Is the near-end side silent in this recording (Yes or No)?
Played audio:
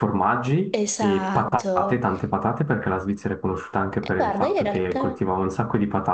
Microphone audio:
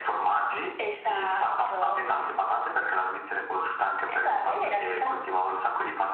Yes